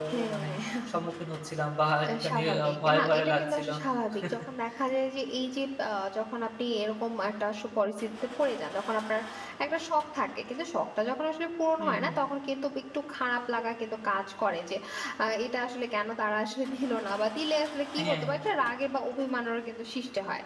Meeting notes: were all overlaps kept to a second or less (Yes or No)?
No